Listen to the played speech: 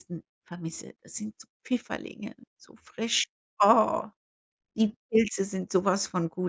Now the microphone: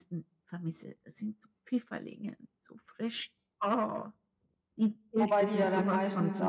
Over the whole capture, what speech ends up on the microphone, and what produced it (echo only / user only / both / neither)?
both